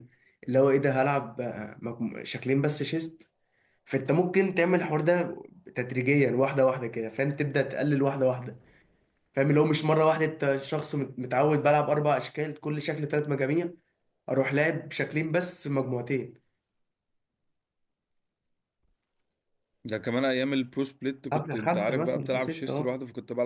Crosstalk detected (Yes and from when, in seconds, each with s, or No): Yes, from 21.3 s